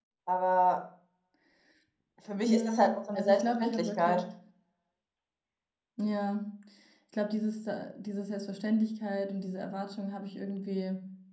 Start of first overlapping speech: 2.4 s

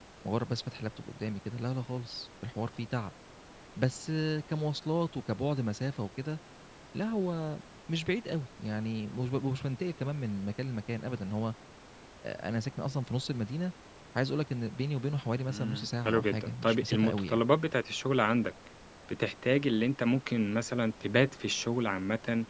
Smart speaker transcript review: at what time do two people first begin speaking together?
15.5 s

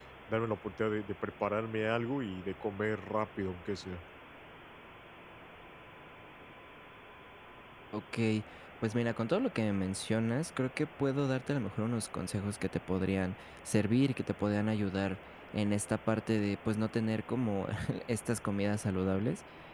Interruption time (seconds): none

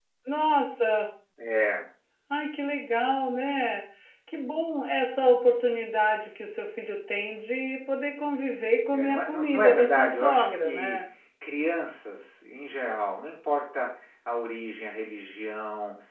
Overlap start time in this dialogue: 8.9 s

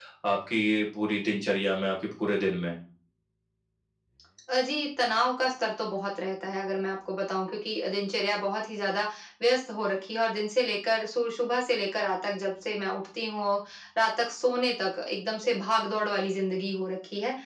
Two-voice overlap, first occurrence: none

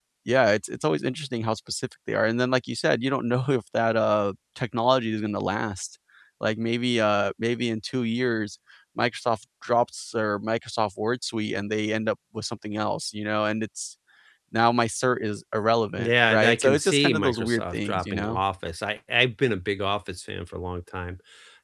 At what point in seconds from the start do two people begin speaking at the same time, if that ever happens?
16.0 s

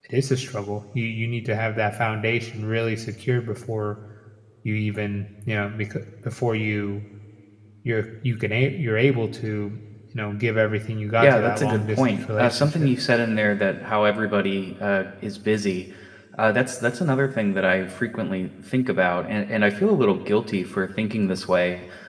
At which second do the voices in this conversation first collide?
11.2 s

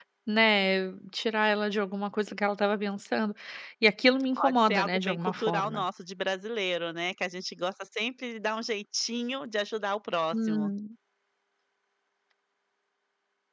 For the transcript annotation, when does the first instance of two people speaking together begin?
4.4 s

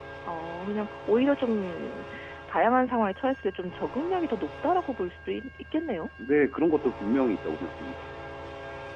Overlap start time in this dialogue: none

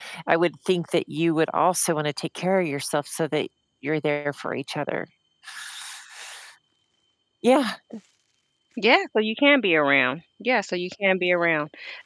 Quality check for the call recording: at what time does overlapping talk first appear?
none

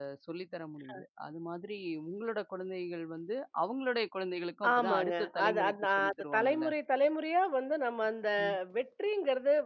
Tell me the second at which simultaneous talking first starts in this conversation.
4.6 s

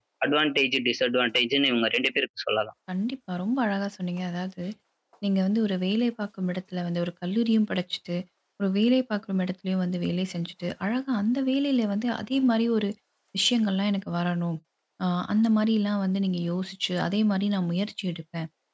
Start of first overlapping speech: none

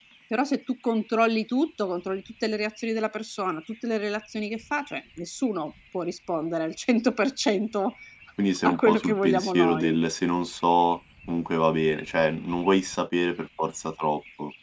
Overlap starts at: 8.6 s

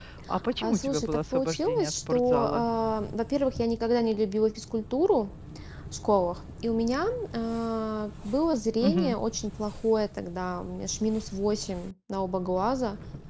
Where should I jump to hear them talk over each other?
0.6 s

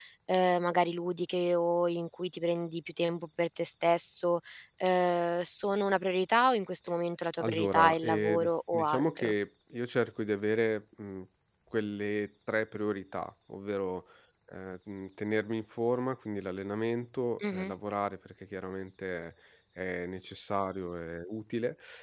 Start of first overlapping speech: 7.4 s

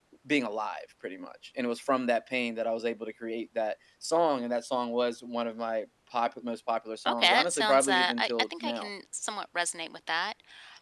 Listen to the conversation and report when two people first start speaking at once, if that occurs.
7.0 s

